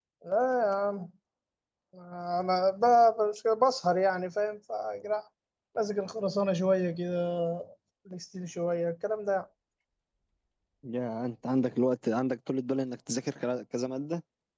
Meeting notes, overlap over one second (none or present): none